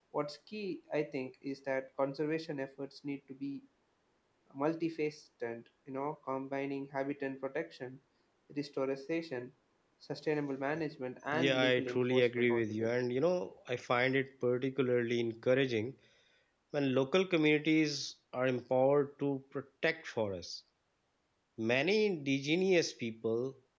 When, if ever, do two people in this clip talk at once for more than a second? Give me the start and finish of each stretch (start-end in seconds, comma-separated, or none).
11.3-12.9